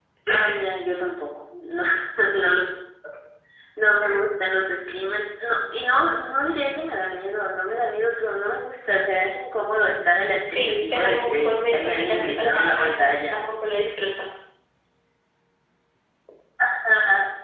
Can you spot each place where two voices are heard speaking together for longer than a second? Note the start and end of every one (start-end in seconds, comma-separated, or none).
10.6-13.4